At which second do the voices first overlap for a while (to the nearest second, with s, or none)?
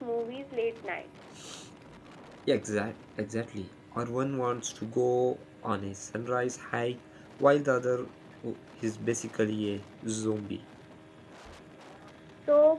none